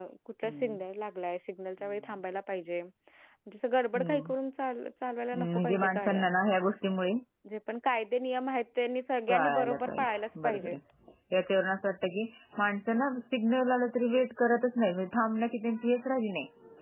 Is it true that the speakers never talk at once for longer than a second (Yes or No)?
No